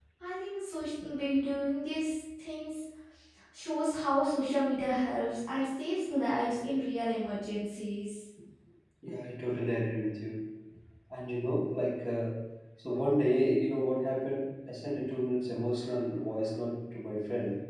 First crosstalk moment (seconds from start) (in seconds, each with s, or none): none